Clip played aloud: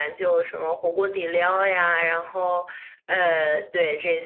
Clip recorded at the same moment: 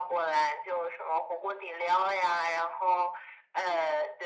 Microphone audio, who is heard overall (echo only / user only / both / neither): echo only